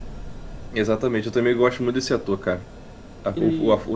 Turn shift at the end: No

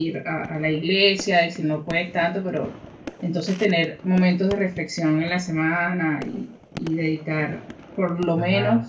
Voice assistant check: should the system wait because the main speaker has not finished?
Yes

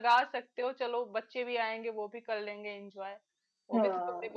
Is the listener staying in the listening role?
Yes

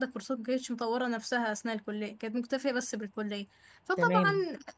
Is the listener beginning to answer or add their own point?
No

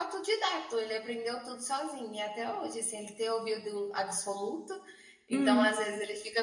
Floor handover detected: No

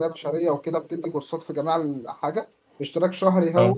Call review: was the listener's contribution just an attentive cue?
Yes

